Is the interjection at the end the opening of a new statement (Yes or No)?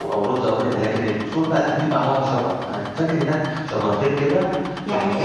Yes